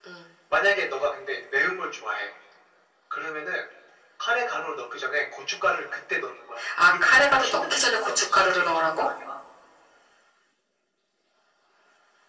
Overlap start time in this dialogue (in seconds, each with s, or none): 6.6 s